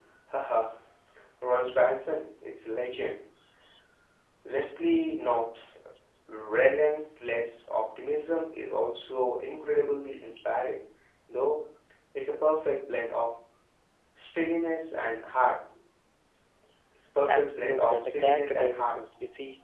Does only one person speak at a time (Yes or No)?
No